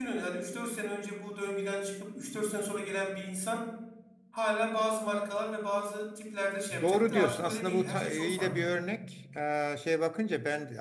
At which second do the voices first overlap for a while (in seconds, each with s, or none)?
6.7 s